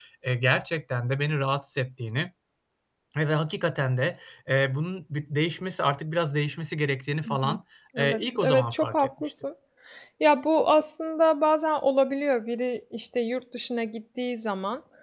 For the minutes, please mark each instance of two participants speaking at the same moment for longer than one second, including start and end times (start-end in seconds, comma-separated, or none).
8.0-9.3